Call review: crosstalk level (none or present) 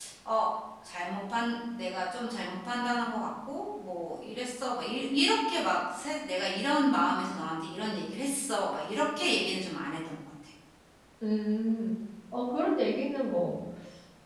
none